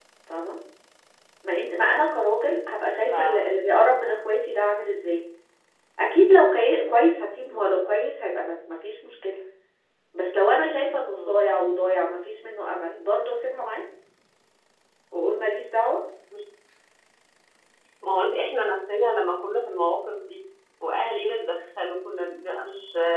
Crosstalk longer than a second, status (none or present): none